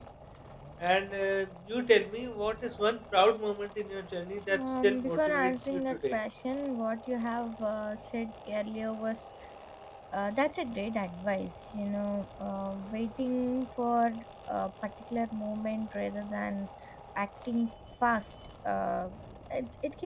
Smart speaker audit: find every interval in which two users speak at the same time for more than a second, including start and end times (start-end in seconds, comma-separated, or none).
4.5-6.2